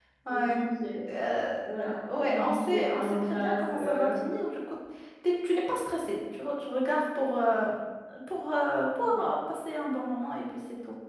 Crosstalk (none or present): present